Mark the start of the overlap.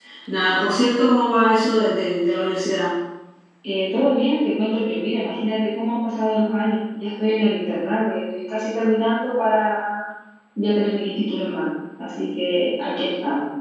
none

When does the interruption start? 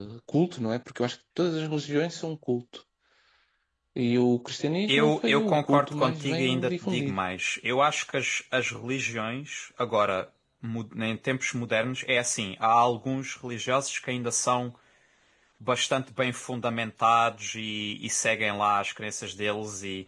4.9 s

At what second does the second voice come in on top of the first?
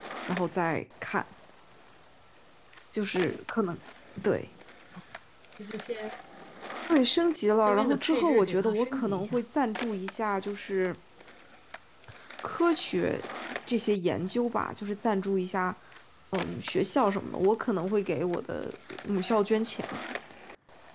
7.7 s

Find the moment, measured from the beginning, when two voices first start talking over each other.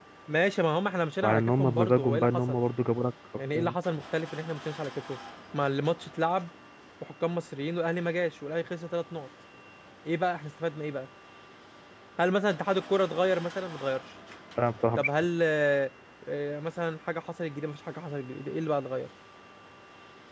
1.2 s

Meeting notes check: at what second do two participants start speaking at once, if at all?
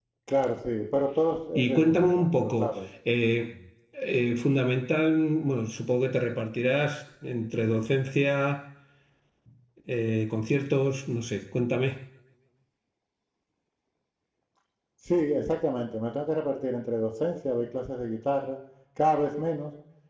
1.6 s

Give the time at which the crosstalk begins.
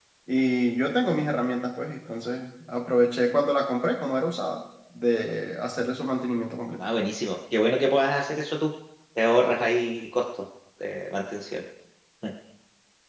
none

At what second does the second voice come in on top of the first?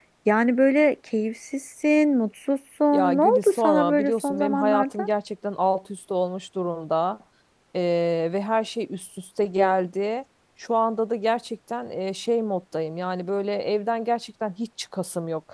2.9 s

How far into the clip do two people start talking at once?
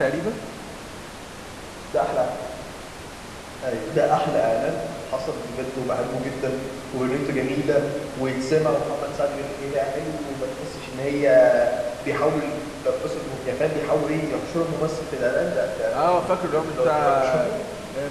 15.9 s

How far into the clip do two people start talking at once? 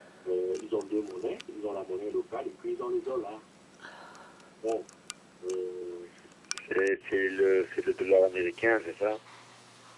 none

